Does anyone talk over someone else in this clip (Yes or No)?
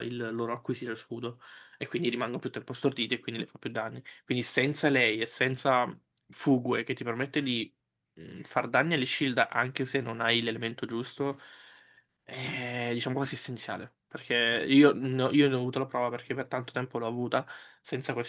No